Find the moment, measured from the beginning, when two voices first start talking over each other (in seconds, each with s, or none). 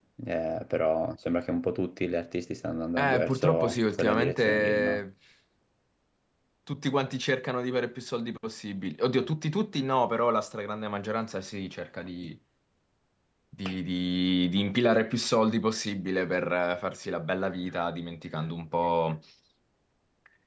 3.0 s